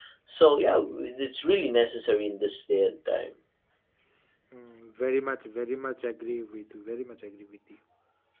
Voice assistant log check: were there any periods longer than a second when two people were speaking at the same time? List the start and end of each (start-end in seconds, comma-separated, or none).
none